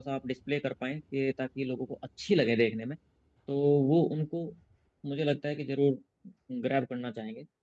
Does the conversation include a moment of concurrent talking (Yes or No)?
No